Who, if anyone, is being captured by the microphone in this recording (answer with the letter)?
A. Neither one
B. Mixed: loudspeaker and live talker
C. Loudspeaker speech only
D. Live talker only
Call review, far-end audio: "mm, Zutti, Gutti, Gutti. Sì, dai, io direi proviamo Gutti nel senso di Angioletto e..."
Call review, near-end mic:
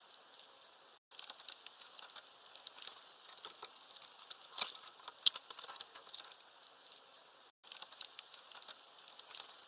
A